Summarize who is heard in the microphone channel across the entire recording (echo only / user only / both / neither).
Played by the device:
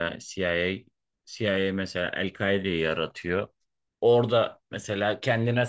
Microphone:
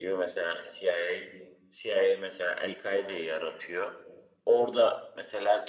echo only